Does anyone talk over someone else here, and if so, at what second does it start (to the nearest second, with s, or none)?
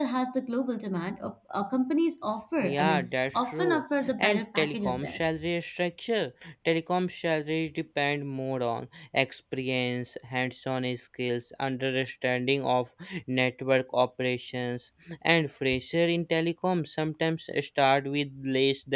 3 s